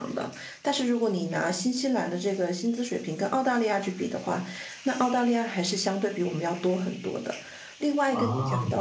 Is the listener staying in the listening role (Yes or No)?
Yes